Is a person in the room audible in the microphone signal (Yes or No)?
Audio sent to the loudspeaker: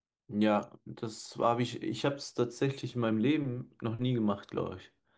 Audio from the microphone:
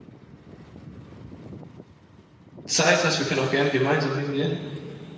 Yes